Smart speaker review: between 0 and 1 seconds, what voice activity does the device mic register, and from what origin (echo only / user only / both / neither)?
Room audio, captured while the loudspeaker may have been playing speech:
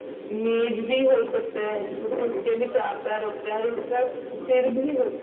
echo only